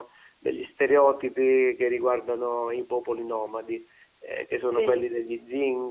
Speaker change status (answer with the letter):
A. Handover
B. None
B